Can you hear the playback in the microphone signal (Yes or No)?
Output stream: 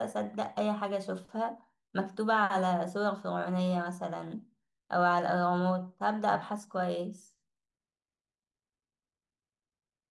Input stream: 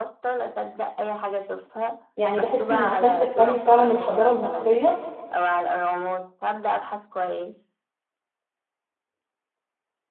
Yes